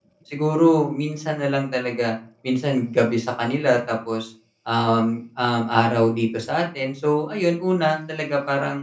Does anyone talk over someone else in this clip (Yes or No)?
No